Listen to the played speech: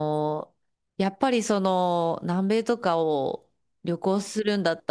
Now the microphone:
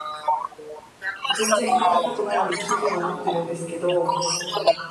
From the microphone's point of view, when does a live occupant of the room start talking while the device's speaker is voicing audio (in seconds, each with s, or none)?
1.3 s